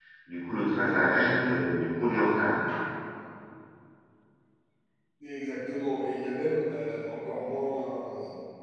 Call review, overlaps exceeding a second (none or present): none